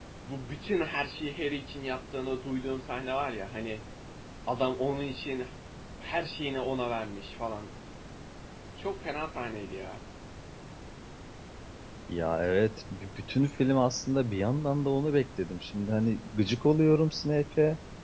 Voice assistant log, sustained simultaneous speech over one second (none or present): none